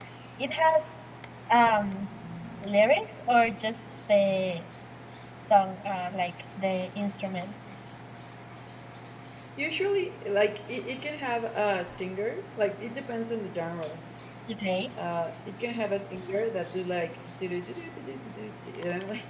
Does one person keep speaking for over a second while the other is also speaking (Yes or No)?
No